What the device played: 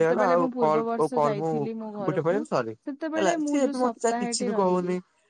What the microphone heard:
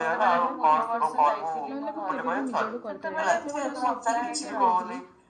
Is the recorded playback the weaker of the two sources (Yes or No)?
No